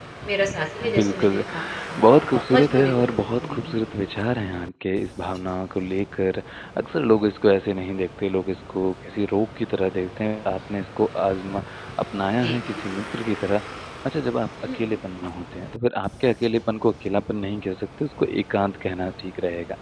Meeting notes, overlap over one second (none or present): present